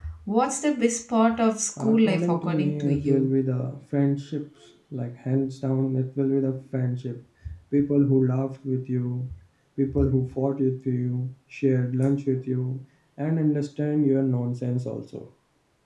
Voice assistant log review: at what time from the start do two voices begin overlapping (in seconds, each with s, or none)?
1.8 s